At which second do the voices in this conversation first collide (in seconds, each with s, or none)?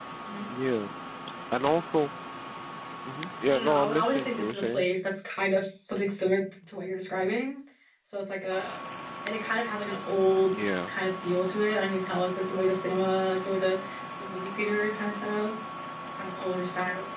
3.5 s